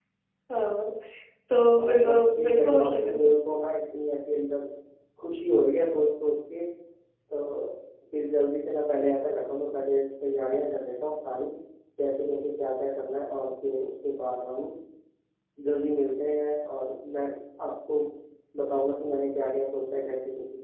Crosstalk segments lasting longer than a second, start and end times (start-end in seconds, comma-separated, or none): 1.8-3.3